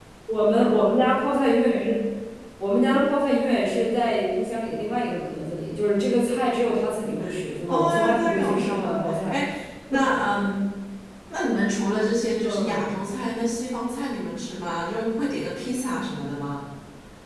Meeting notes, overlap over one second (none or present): present